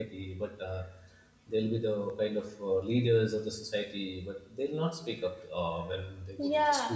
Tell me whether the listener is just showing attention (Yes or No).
No